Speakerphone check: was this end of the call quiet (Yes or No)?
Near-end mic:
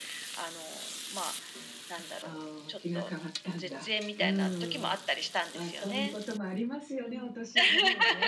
No